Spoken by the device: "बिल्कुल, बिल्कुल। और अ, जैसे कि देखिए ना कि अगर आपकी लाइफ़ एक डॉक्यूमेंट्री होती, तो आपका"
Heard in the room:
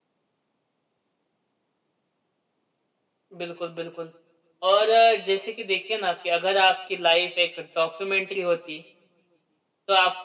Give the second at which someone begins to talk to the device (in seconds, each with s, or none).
none